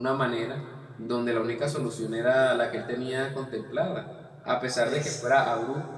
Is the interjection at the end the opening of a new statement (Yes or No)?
No